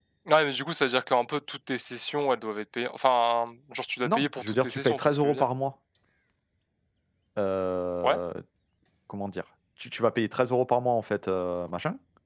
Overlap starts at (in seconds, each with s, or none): 4.0 s